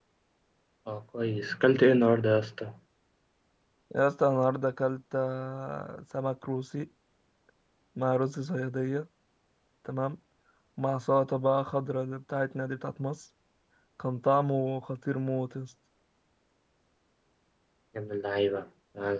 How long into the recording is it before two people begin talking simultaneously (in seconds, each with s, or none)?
none